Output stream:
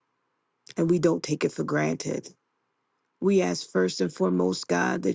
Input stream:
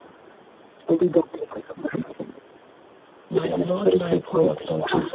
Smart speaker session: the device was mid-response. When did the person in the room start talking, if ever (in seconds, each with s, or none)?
3.3 s